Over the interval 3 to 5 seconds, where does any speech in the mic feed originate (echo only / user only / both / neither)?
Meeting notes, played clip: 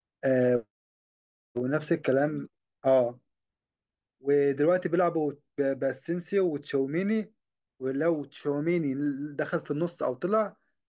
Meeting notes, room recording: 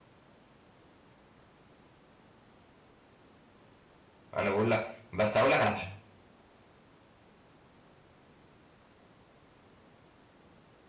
user only